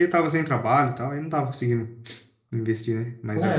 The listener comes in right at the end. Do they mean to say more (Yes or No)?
Yes